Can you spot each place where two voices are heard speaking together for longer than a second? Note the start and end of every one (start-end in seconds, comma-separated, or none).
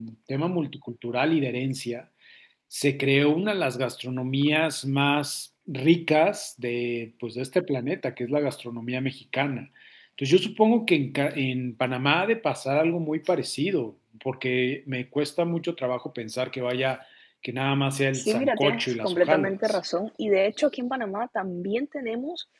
18.1-19.8